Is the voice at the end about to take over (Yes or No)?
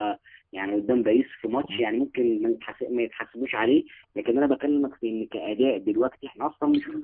Yes